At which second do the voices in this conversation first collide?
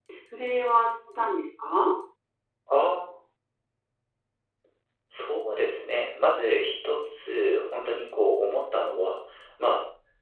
none

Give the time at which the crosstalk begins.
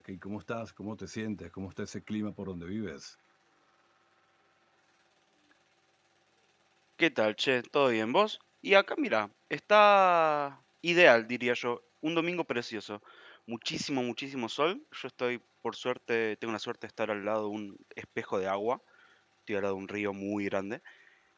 none

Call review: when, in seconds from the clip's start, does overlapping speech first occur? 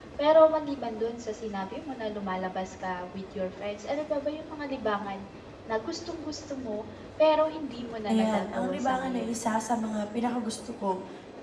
8.1 s

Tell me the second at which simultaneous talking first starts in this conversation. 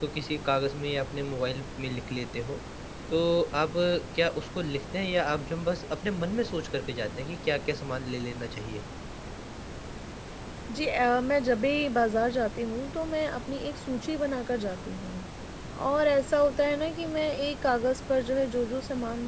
none

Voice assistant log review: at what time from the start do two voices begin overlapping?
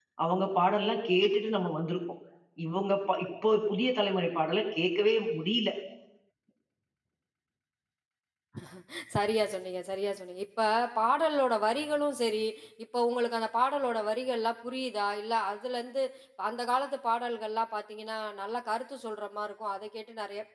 none

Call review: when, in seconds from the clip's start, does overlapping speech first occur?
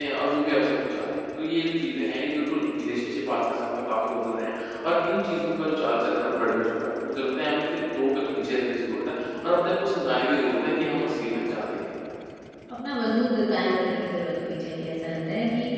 none

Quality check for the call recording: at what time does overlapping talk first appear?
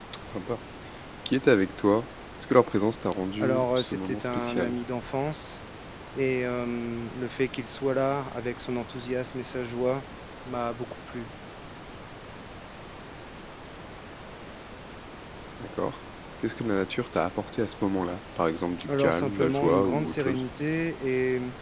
3.4 s

